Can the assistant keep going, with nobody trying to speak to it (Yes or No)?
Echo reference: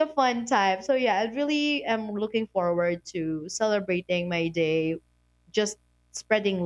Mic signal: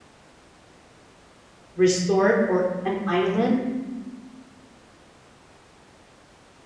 No